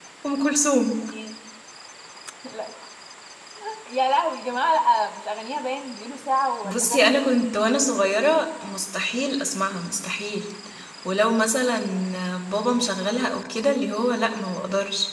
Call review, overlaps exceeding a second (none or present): none